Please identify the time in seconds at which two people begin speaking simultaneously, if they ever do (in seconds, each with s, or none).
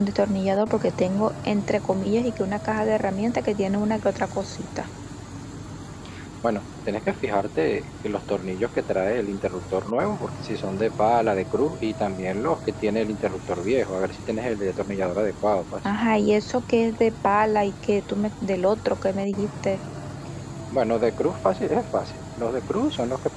none